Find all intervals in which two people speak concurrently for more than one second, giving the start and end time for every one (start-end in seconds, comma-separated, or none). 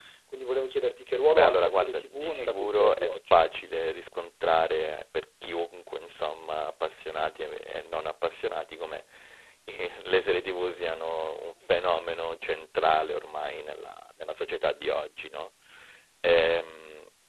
1.3-3.1